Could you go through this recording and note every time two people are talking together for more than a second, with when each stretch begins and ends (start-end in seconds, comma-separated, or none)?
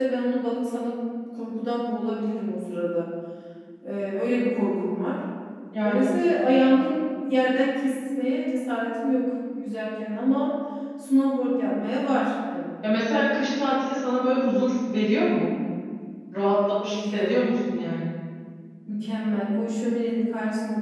none